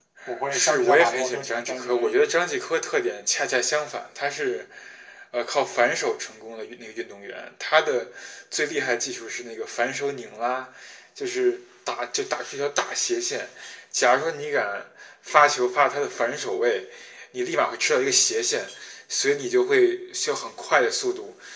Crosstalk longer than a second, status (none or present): present